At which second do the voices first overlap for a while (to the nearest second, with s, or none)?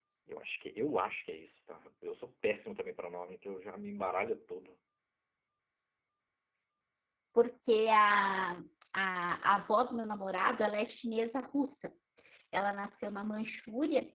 none